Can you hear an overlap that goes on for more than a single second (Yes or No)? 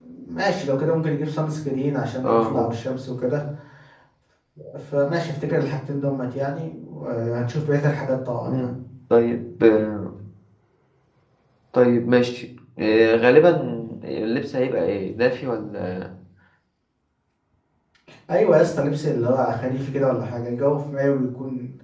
No